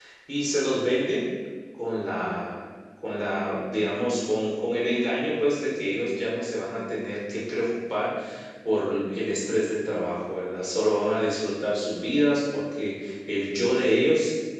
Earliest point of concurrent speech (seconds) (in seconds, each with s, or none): none